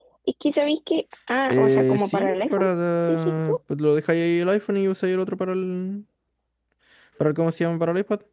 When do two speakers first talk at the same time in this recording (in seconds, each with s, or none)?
1.5 s